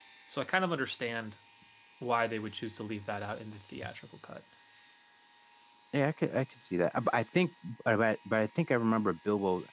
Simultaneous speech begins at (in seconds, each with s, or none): none